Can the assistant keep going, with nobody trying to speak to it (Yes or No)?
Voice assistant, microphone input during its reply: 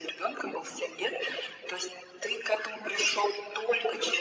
Yes